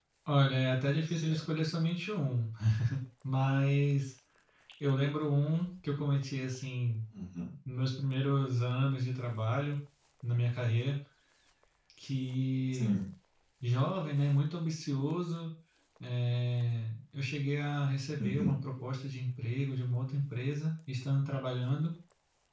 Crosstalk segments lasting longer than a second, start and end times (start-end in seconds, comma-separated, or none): none